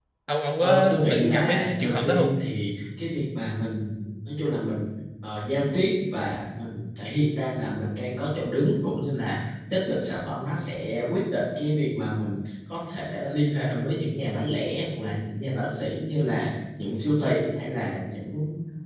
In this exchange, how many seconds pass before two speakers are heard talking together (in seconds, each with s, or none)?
0.6 s